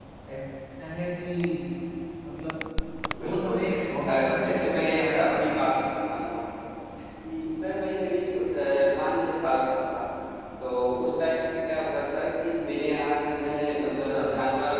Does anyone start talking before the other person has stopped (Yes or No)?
Yes